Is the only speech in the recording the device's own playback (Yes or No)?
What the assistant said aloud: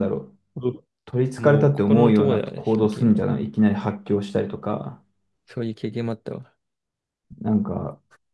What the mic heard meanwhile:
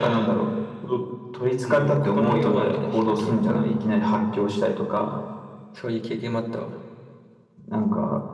Yes